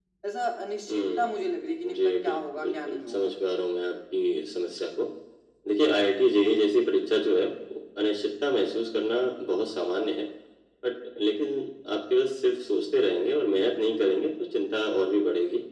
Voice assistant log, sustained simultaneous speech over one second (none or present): present